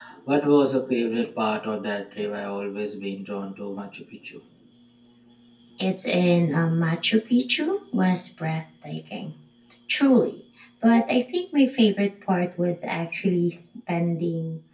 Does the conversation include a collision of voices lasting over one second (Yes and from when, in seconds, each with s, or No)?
No